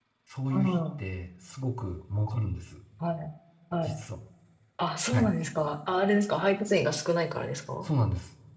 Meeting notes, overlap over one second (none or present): none